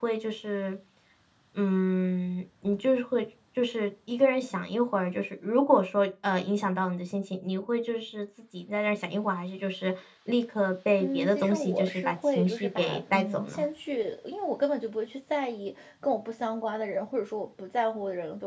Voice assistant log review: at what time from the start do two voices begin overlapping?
11.0 s

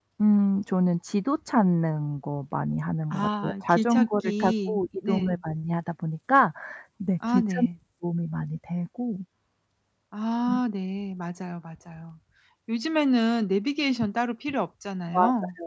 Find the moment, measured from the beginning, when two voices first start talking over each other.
3.1 s

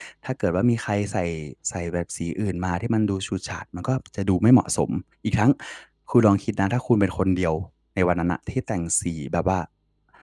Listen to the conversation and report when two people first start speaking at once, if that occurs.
none

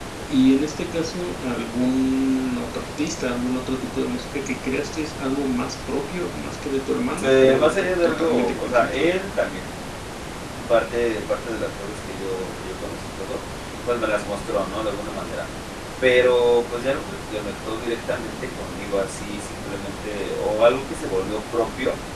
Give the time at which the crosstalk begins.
7.2 s

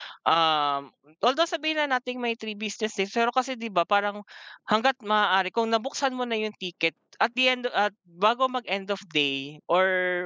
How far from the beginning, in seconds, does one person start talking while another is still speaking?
none

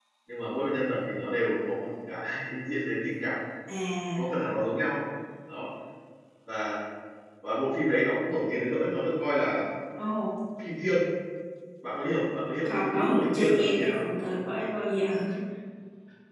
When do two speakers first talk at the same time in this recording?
12.7 s

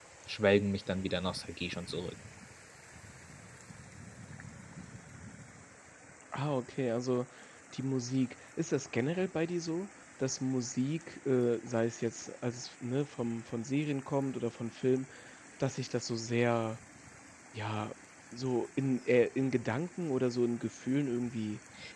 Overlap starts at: none

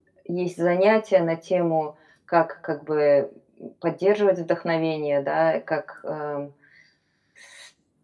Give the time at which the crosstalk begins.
none

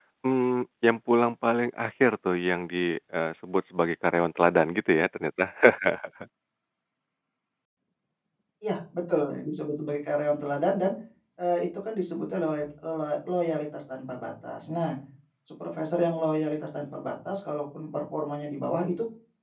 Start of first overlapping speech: none

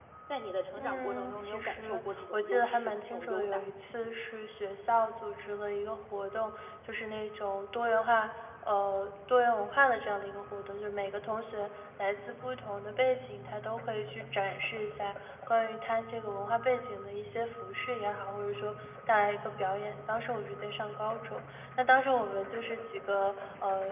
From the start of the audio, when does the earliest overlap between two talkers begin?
0.8 s

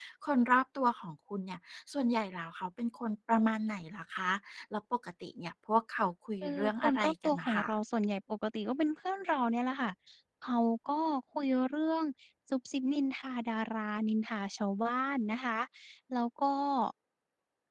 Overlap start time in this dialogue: 6.4 s

